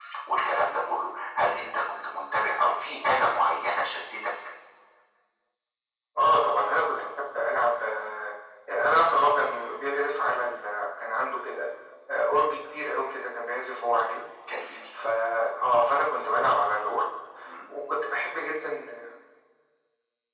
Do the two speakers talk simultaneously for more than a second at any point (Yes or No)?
No